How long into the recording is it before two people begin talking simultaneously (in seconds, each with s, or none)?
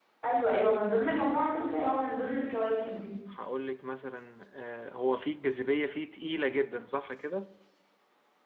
none